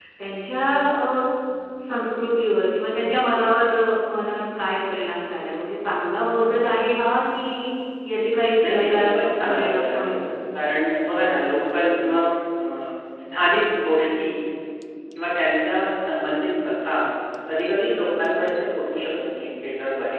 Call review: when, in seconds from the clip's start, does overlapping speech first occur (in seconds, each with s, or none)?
8.6 s